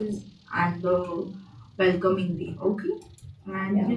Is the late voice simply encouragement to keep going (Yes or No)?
Yes